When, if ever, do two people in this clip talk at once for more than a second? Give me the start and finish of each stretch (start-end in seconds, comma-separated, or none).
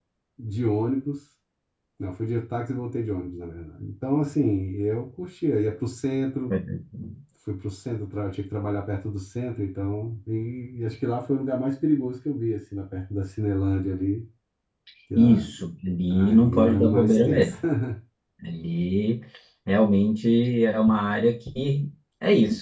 16.1-17.6